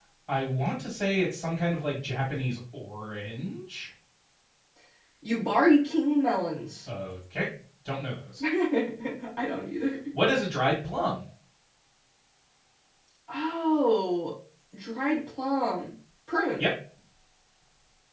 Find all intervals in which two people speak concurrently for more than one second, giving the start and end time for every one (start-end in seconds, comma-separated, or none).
none